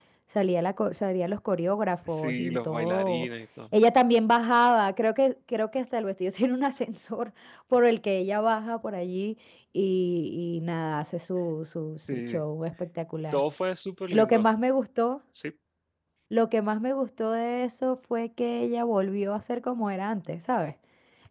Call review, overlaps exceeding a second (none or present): present